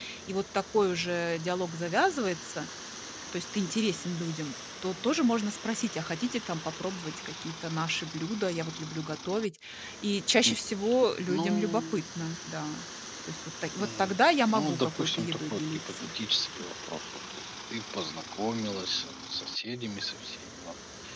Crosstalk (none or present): present